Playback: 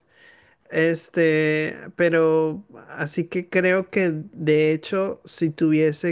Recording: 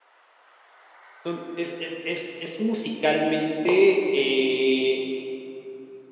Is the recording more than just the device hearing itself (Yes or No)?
Yes